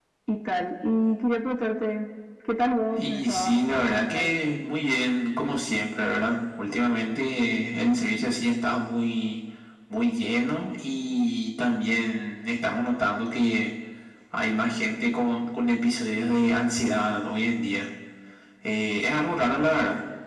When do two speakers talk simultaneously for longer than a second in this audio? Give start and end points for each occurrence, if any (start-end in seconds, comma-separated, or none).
2.9-4.3